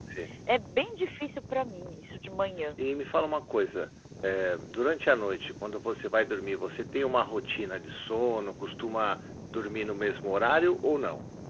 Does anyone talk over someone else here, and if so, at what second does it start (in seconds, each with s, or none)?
none